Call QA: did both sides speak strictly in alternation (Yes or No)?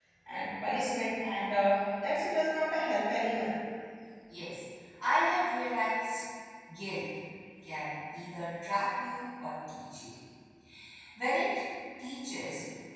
Yes